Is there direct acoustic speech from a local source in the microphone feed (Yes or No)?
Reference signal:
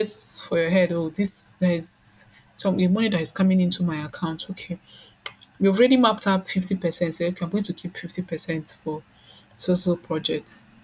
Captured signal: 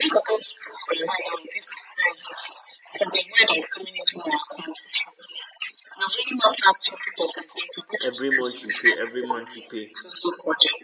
Yes